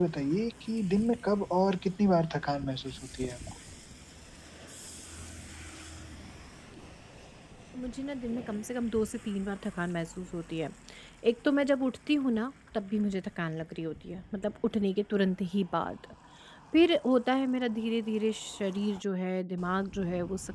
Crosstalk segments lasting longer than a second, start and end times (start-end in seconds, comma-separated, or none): none